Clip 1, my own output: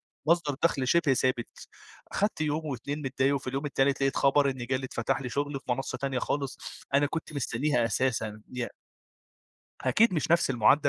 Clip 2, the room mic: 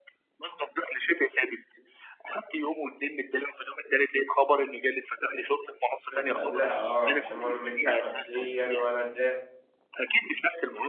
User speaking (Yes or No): Yes